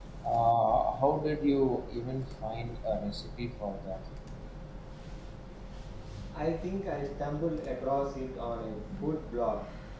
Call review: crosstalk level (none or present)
none